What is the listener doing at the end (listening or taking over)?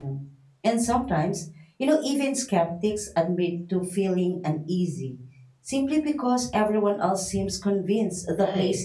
taking over